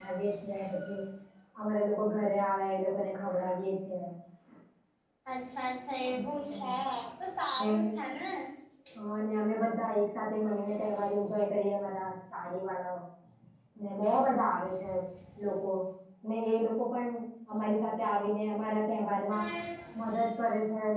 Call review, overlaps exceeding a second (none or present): none